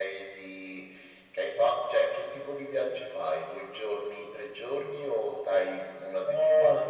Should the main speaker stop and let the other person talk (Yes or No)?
Yes